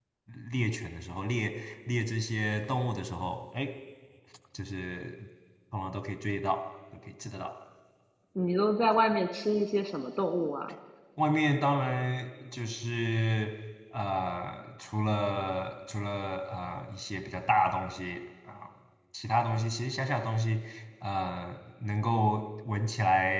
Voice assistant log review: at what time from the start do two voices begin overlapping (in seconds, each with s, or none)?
none